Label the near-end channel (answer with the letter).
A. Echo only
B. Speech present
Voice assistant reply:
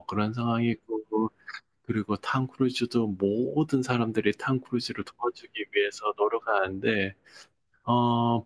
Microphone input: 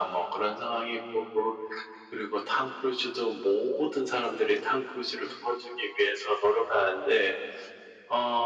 A